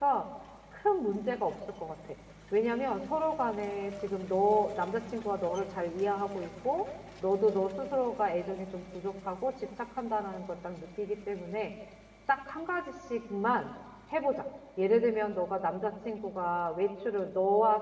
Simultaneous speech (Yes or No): No